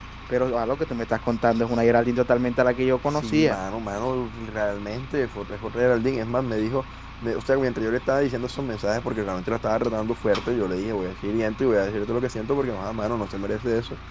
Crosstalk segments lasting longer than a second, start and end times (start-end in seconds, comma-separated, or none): none